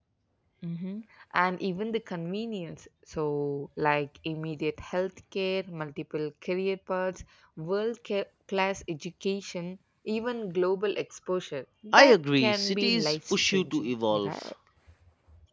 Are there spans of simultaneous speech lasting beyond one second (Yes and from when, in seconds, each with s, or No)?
Yes, from 11.9 s